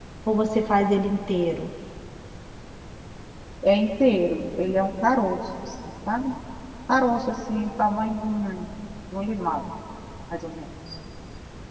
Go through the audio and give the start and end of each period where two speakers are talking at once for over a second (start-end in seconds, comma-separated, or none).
none